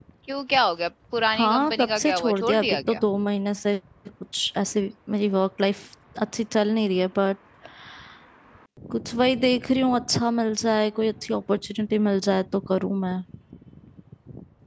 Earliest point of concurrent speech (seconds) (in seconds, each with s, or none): 1.4 s